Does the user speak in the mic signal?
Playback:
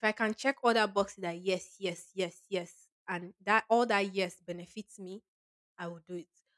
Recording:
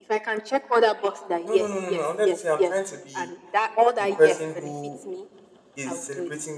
Yes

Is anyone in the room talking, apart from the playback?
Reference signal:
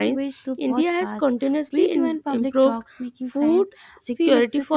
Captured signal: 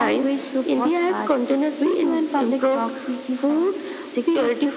No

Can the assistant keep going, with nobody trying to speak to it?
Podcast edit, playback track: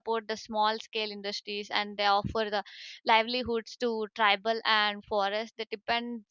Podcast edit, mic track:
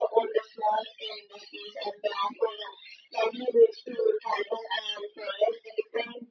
Yes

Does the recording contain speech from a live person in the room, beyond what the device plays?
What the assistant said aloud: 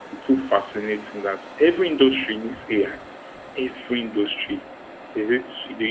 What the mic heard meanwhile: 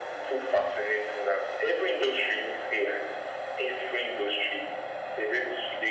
No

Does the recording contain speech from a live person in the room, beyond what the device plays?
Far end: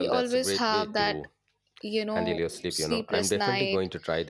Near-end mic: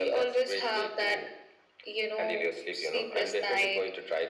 No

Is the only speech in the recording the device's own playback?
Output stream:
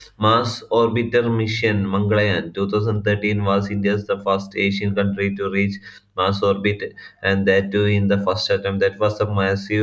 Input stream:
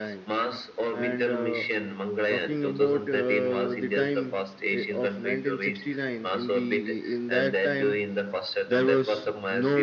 No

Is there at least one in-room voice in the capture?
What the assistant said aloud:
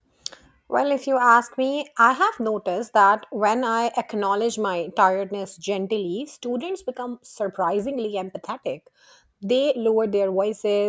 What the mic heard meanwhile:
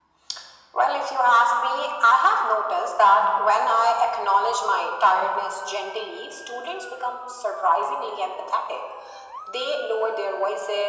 No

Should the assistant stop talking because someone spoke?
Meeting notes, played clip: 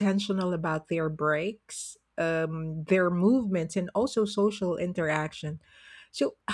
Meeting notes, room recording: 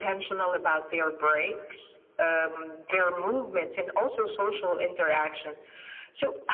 No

